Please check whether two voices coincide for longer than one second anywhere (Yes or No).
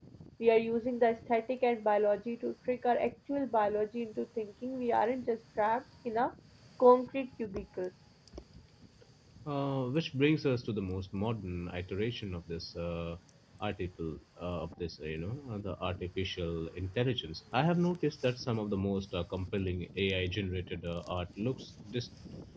No